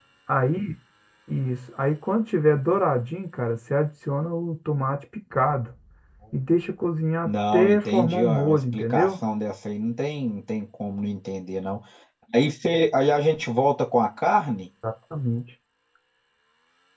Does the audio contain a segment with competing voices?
Yes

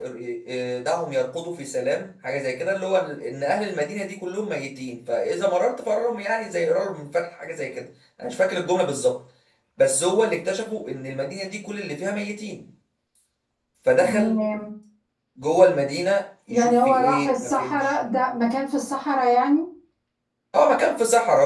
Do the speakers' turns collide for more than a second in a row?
Yes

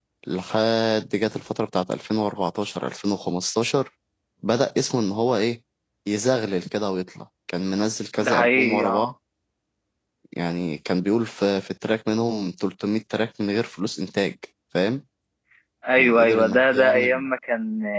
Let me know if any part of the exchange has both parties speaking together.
Yes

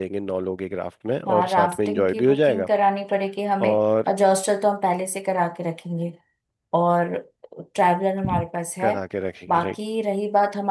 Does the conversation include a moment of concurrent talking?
Yes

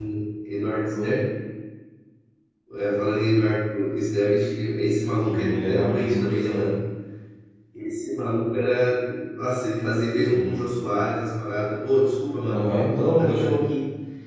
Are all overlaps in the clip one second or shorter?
No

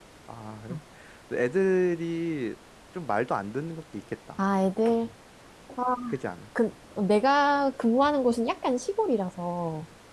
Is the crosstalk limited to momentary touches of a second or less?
Yes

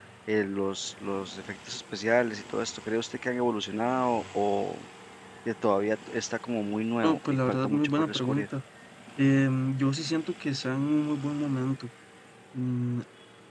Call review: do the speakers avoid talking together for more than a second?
No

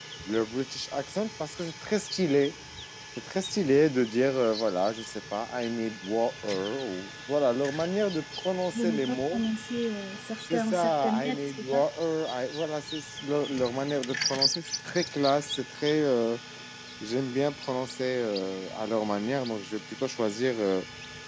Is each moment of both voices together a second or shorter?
No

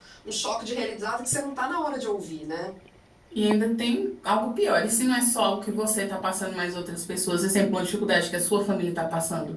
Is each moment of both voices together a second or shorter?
Yes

